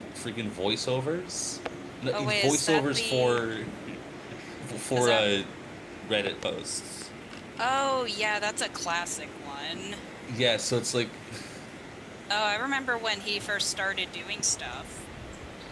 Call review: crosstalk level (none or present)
present